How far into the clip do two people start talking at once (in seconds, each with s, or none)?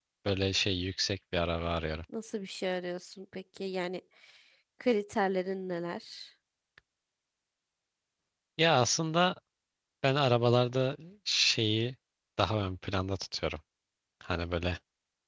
none